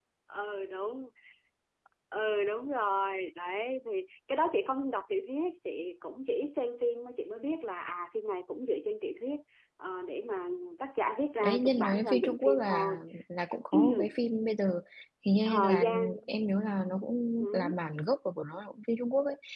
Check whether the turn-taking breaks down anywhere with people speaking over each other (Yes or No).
Yes